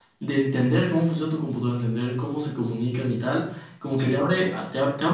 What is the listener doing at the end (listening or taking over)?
listening